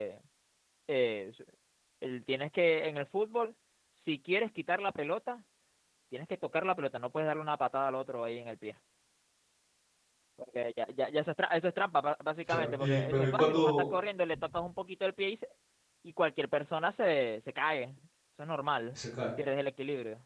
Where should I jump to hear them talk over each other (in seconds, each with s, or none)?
12.5 s